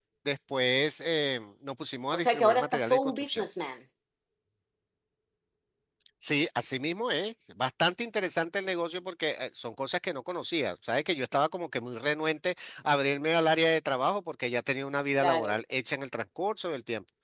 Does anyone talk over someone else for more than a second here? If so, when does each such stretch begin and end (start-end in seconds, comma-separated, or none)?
2.1-3.4